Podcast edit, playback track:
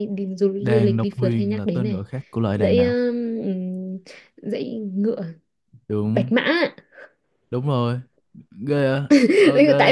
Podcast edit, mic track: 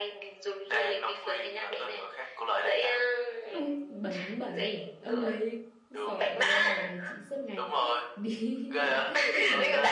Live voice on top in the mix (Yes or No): No